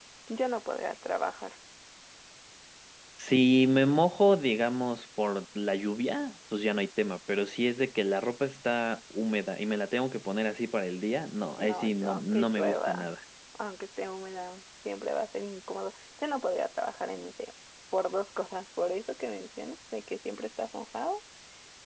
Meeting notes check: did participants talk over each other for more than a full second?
Yes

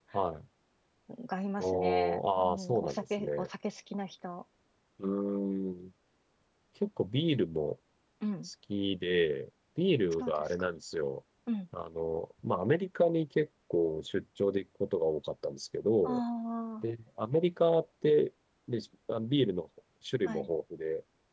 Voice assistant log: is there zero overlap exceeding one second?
No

